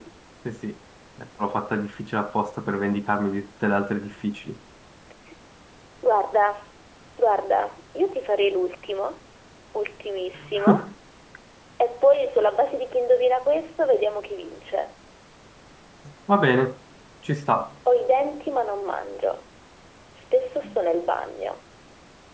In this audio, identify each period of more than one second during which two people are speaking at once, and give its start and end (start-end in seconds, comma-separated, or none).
none